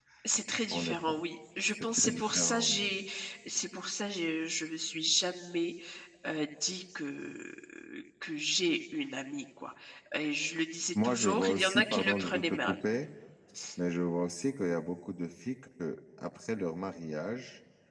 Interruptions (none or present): present